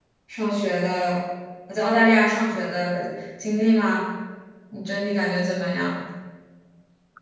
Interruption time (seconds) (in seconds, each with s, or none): none